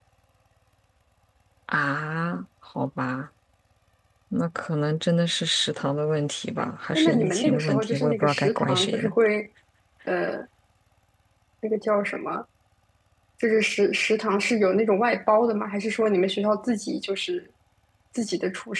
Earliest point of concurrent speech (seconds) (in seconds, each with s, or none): 7.0 s